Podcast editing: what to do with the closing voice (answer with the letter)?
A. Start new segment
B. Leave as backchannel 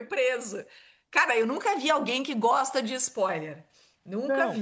A